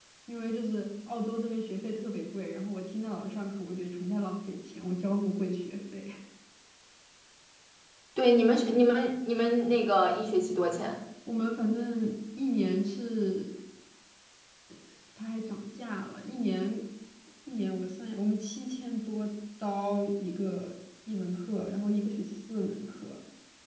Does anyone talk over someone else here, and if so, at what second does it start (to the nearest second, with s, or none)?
none